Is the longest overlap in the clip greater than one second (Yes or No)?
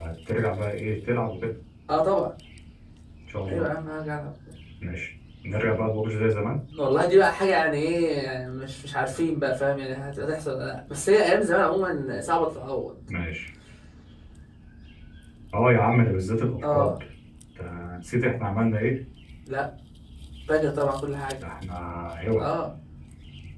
No